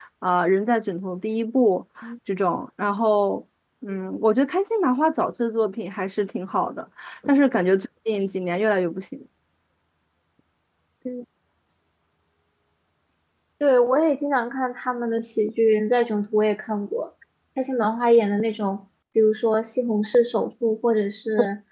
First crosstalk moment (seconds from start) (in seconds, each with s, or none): none